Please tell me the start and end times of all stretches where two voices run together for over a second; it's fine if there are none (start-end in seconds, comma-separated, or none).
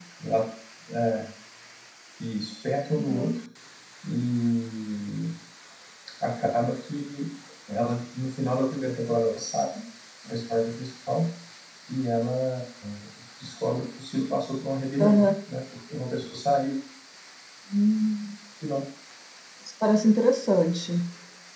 none